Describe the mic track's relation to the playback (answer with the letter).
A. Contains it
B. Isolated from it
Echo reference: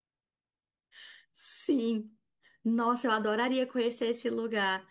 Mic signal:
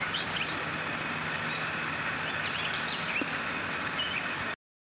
B